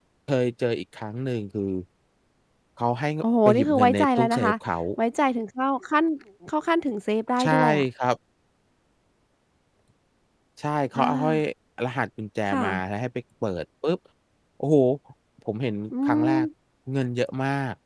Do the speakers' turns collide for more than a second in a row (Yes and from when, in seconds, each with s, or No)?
Yes, from 3.2 s